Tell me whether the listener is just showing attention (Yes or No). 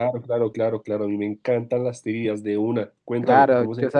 No